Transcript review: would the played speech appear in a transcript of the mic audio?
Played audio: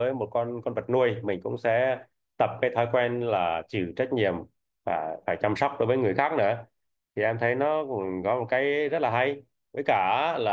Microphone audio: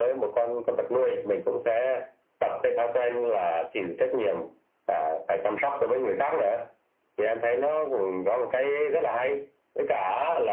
Yes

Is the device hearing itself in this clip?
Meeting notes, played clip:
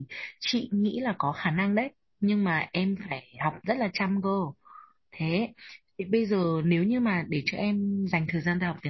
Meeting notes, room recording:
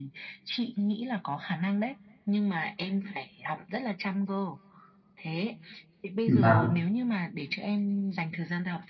Yes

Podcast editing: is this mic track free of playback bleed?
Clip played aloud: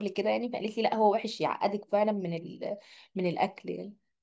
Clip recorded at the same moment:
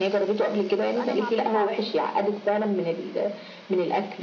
No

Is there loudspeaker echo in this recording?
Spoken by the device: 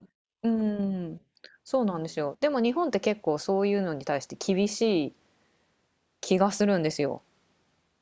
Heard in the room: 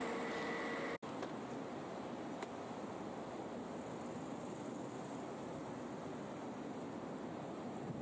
No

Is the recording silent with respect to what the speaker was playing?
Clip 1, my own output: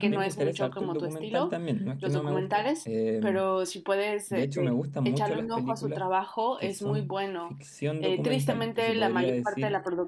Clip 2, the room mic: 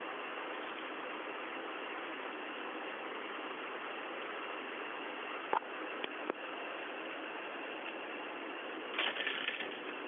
Yes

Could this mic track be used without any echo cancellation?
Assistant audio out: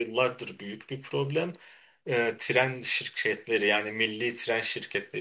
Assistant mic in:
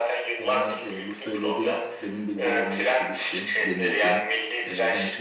No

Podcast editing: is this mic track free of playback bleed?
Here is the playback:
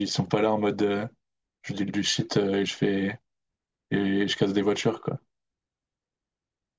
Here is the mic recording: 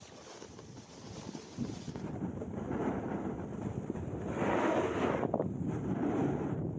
Yes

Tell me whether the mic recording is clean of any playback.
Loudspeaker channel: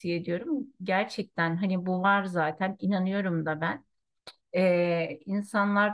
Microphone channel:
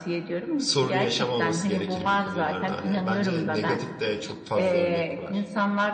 No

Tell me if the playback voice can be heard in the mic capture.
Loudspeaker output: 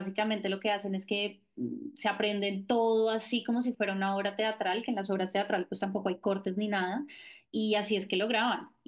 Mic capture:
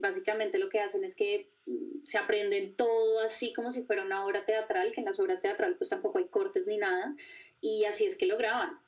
Yes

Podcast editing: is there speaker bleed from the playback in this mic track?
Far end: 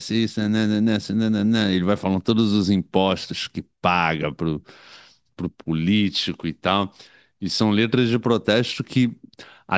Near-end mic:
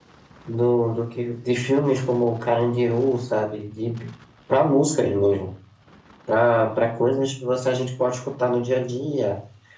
No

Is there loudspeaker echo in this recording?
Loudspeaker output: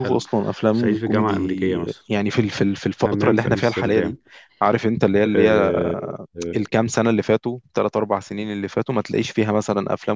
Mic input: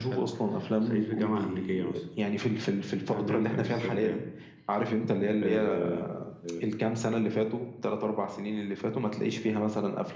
Yes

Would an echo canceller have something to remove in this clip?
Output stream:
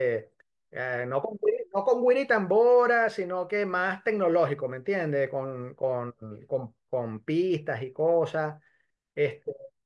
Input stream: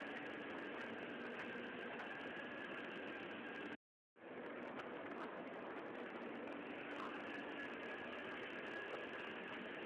No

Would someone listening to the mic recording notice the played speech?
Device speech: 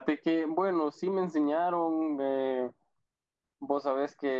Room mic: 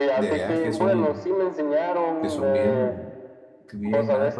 Yes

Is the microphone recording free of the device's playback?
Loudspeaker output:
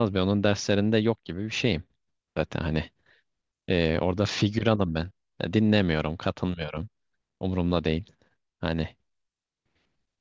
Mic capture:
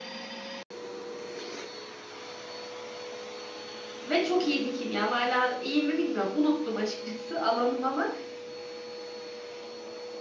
Yes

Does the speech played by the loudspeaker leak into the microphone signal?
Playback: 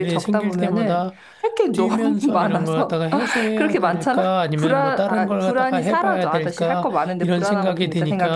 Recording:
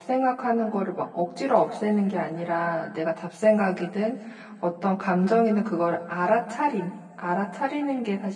No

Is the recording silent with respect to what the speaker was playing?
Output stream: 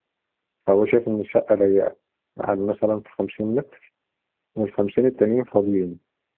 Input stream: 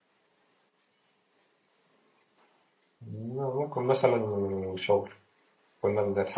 Yes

